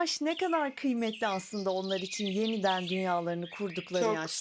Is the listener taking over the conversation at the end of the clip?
Yes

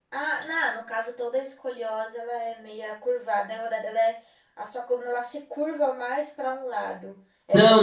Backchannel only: No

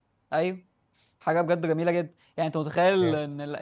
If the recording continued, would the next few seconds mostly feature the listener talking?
No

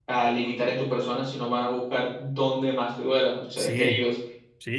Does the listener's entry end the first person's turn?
Yes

